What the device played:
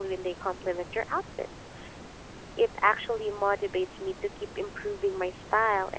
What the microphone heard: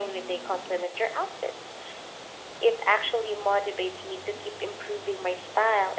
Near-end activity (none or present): none